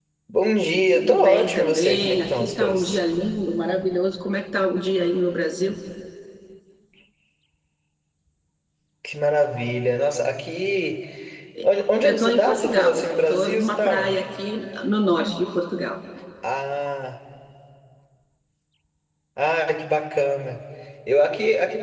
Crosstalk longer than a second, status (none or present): present